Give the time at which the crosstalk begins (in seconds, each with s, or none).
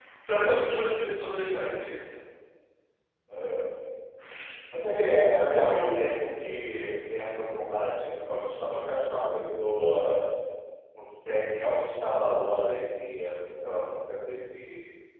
none